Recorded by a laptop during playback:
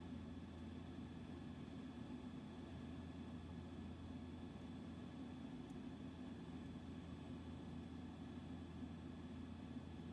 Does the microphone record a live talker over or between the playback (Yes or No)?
No